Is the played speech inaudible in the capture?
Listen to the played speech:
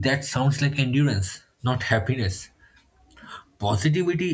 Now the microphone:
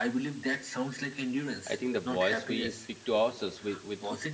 No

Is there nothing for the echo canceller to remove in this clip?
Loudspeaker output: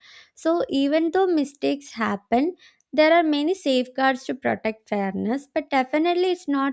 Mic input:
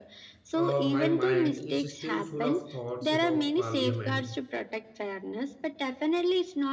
No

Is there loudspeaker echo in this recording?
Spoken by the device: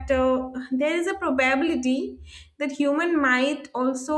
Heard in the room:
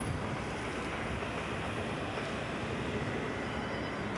No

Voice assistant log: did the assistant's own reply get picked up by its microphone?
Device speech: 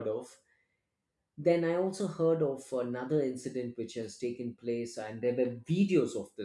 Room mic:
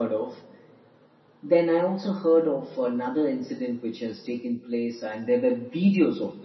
Yes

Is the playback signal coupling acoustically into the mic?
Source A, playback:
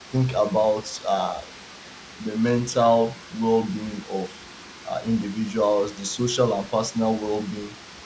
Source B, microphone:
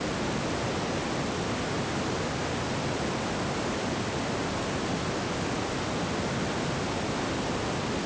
No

